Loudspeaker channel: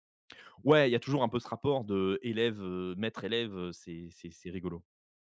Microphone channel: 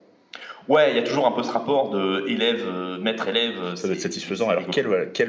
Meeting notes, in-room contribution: present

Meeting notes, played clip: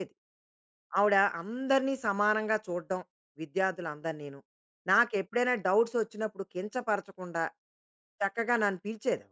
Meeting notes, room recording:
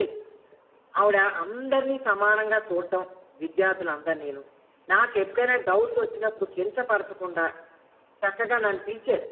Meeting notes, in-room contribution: none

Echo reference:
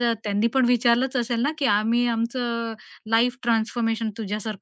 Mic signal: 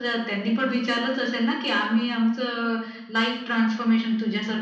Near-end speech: none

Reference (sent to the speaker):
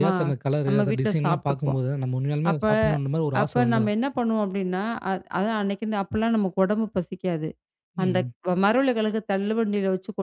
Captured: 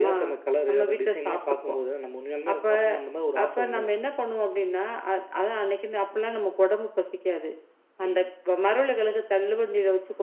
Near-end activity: none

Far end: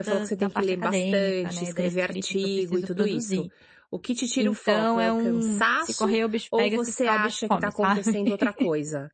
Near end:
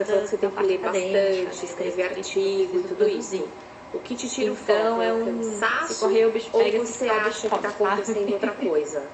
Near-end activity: none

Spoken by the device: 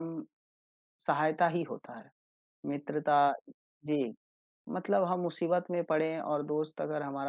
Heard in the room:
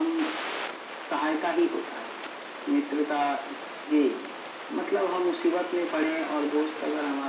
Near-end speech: none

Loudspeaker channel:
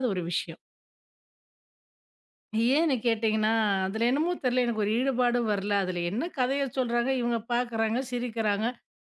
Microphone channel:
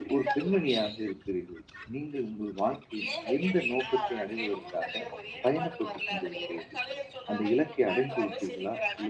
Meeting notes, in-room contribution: present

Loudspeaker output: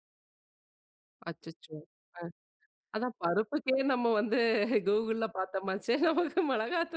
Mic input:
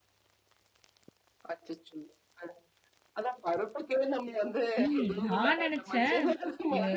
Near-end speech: present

